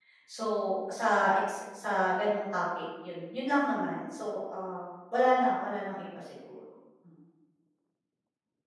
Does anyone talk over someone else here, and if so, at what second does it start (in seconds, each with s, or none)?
none